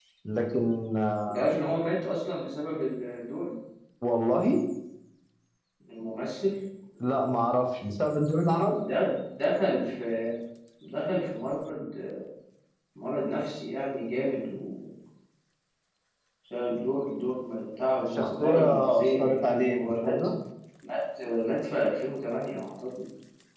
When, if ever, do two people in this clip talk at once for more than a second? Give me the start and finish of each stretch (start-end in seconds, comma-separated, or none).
18.1-20.2